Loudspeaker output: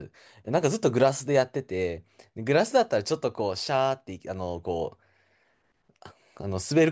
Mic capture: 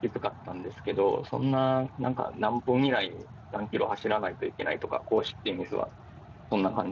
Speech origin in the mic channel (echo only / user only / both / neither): user only